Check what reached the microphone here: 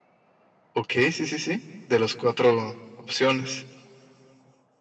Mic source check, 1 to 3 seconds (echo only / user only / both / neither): echo only